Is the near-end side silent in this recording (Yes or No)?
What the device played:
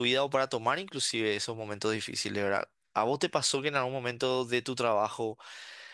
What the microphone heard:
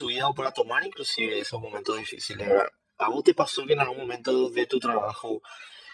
Yes